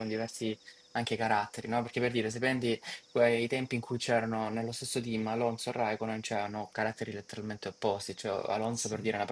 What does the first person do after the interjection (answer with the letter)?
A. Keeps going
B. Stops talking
A